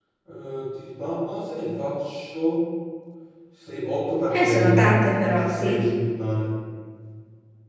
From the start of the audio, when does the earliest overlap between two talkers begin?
4.3 s

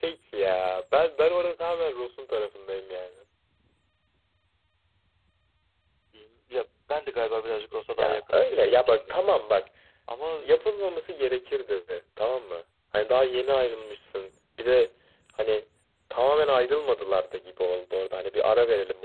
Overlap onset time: 7.9 s

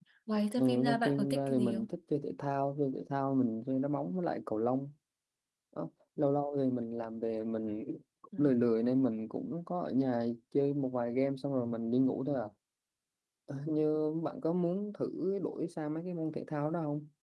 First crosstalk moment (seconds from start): 0.6 s

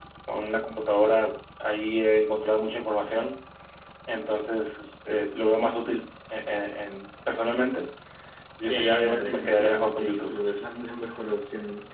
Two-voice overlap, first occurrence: 8.7 s

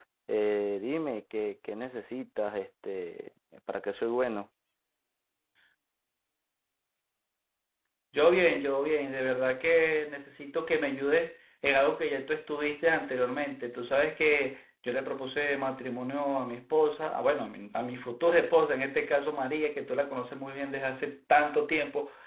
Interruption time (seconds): none

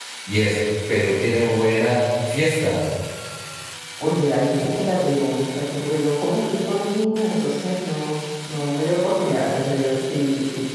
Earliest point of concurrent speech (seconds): none

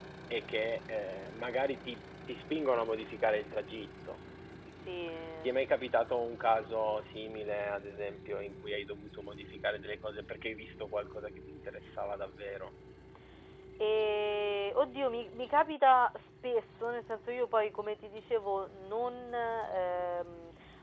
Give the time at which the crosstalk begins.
none

